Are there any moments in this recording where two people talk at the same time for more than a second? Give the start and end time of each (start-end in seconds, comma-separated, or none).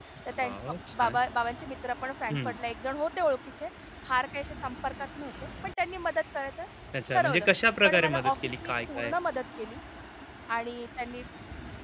7.8-9.1